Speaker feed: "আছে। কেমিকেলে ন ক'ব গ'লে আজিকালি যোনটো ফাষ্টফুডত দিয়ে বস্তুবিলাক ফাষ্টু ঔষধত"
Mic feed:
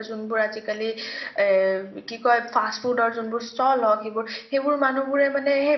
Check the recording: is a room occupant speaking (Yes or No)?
Yes